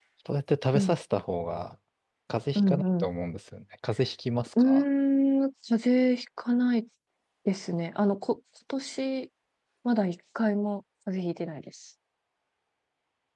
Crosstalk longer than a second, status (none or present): none